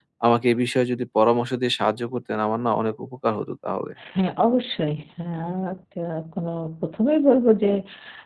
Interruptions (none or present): none